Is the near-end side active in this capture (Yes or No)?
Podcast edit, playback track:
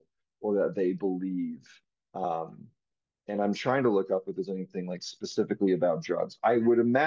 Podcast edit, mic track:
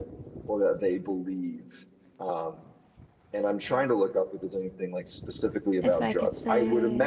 Yes